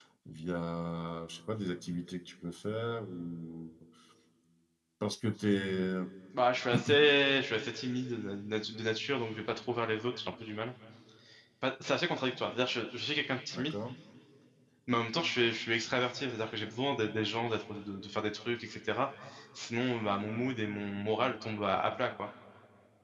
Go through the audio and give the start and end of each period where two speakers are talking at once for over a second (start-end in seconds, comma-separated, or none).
none